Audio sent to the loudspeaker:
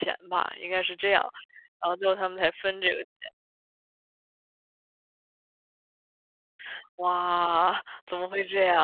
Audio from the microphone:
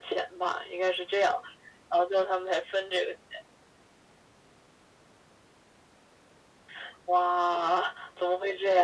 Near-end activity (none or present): none